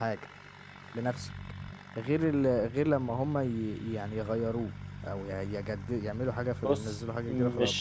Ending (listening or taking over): taking over